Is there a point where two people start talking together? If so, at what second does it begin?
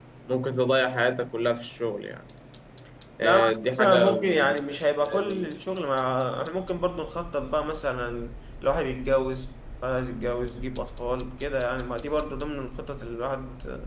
3.2 s

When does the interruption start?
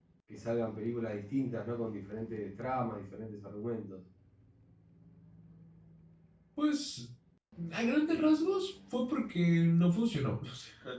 none

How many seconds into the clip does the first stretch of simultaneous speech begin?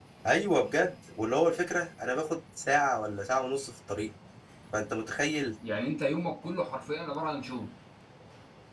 none

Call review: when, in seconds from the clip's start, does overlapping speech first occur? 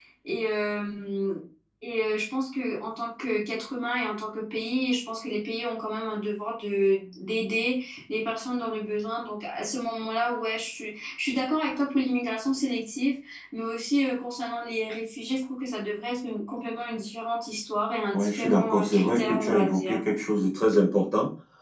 18.1 s

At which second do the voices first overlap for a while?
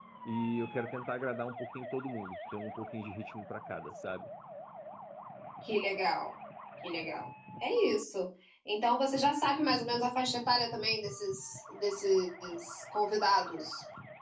none

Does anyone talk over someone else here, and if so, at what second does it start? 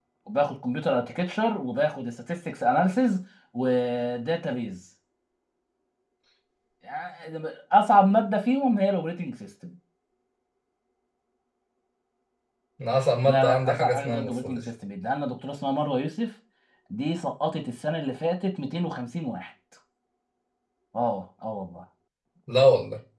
13.2 s

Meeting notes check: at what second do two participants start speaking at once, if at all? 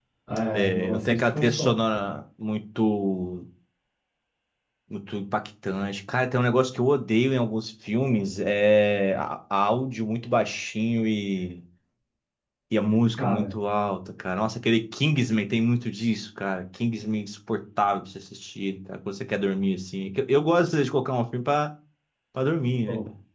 0.5 s

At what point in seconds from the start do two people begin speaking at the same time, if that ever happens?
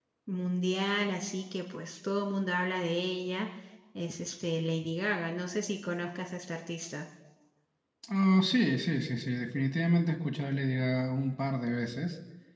none

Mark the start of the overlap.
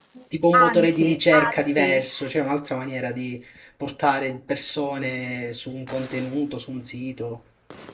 0.5 s

